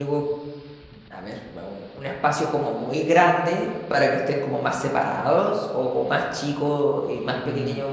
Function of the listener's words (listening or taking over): taking over